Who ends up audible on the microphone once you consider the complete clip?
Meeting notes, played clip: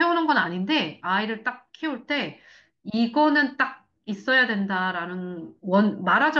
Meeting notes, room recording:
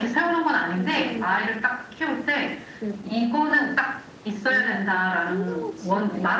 both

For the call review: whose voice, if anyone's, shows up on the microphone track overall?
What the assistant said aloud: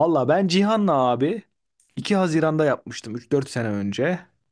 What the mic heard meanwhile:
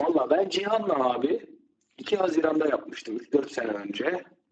echo only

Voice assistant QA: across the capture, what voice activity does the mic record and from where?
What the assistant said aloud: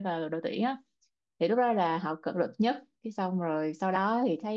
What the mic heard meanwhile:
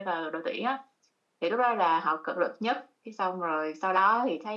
echo only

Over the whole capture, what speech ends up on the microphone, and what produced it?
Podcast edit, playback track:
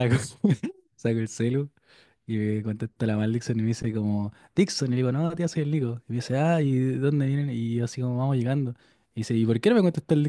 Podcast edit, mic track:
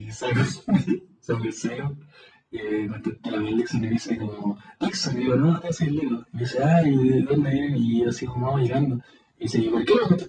echo only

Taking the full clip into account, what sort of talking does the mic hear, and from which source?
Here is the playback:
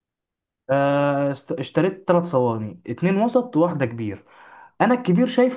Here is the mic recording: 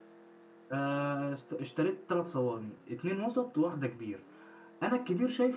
echo only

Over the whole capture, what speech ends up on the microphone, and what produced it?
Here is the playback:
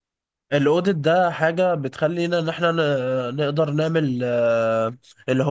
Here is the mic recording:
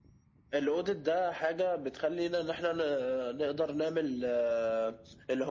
echo only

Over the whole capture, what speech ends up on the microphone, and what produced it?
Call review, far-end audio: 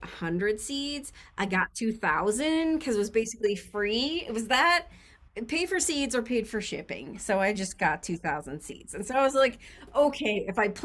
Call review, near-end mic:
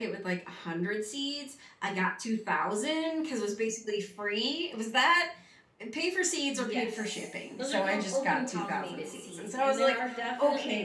both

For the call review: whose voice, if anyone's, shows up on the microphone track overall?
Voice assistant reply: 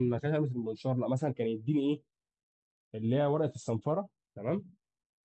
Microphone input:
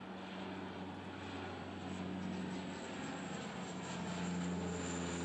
neither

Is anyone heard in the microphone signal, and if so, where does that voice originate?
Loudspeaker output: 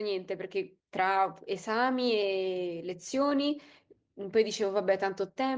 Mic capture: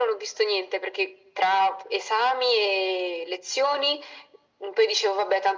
echo only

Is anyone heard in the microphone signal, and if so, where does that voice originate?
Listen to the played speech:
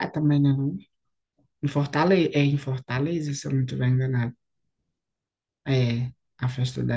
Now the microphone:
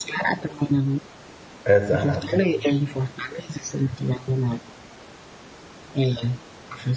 both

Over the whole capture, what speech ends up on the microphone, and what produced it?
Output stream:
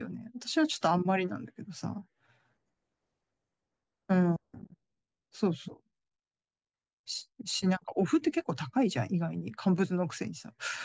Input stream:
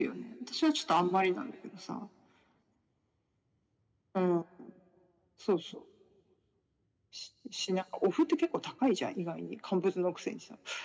echo only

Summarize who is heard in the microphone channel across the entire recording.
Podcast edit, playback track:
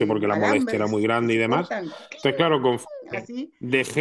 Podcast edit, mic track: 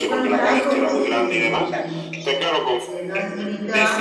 both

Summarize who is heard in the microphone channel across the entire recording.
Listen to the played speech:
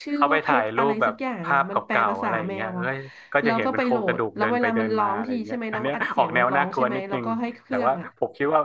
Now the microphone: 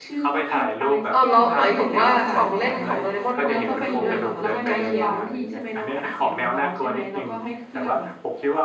both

